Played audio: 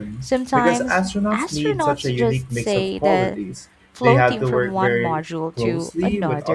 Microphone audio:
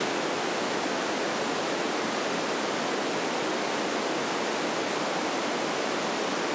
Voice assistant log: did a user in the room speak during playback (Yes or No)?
No